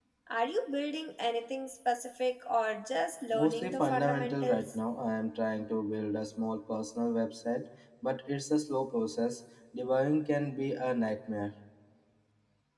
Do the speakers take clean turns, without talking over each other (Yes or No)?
No